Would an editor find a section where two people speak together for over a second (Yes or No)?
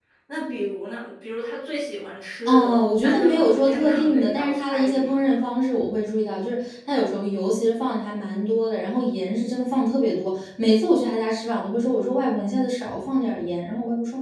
Yes